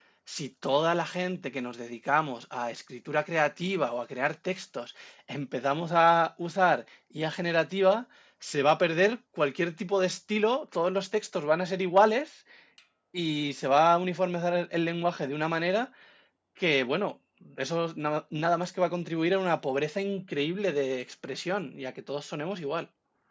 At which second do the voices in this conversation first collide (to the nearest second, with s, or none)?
none